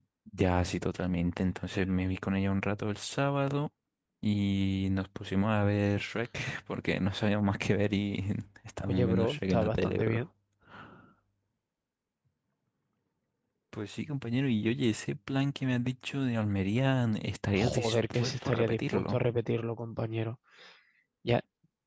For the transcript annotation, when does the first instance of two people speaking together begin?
9 s

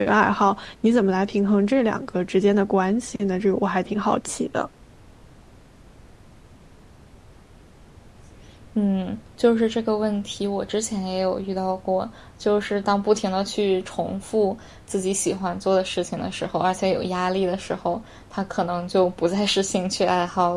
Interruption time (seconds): none

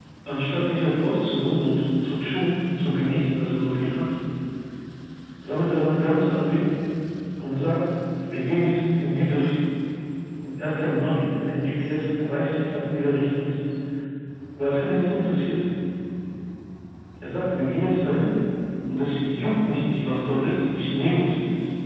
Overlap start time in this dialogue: none

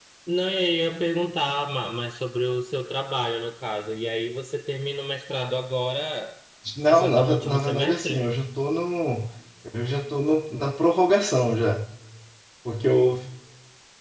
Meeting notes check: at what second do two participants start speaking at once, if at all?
7 s

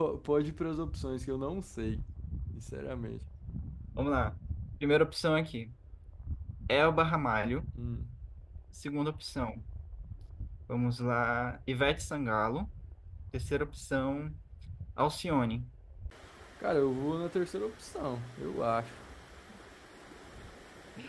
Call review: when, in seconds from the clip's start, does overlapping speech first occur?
none

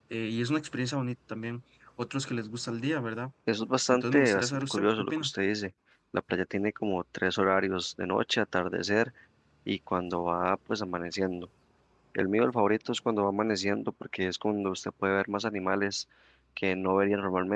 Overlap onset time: 4 s

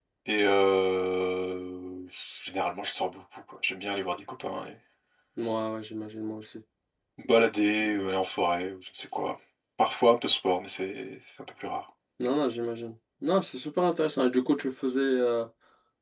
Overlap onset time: none

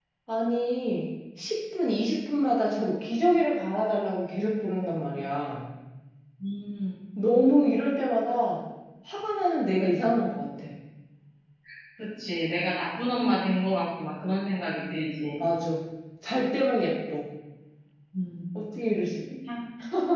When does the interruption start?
none

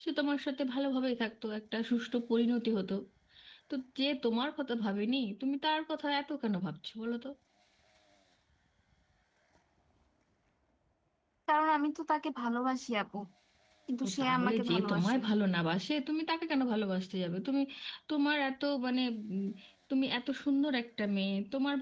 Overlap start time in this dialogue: 14 s

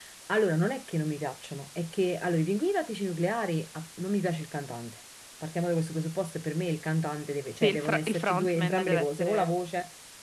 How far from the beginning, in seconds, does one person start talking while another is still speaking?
8 s

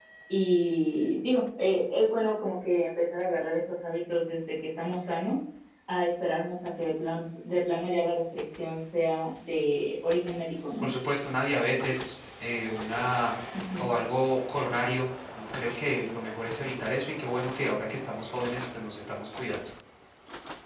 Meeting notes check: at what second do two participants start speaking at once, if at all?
none

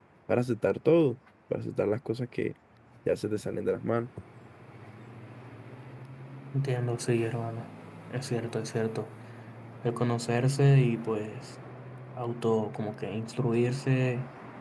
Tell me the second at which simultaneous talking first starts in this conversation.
none

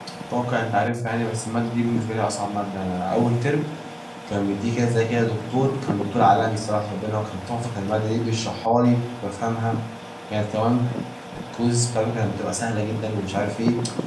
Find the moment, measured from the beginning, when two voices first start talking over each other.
none

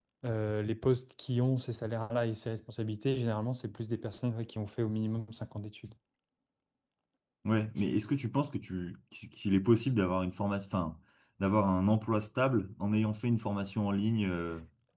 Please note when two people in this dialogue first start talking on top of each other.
none

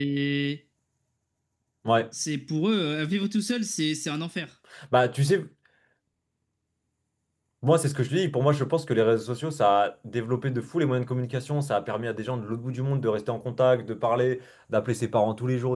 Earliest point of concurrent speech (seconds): none

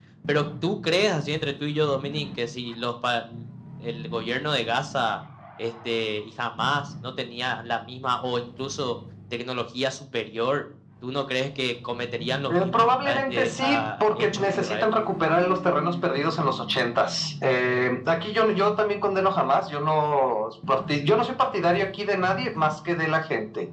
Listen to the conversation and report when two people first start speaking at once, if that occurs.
12 s

